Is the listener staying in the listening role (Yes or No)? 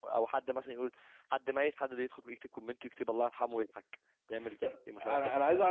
No